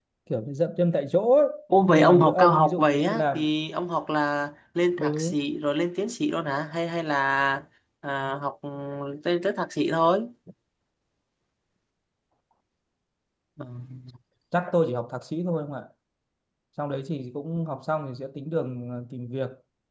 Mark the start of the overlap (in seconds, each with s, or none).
1.9 s